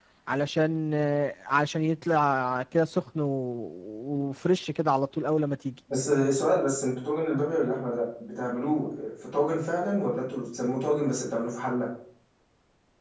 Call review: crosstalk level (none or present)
none